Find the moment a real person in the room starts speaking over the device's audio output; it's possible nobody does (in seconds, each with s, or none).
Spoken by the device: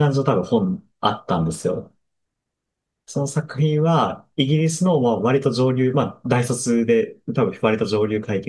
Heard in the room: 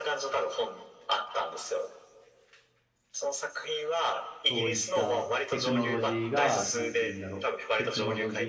4.4 s